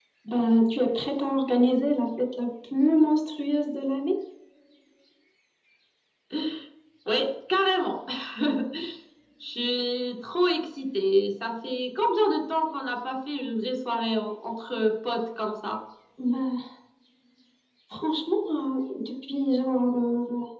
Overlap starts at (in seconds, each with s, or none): none